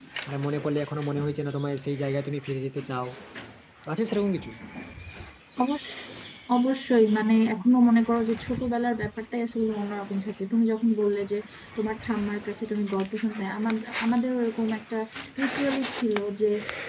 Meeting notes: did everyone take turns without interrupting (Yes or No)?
Yes